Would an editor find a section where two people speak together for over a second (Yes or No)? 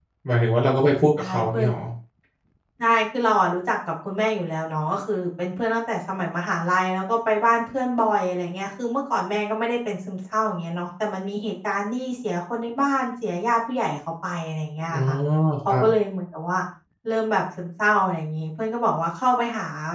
No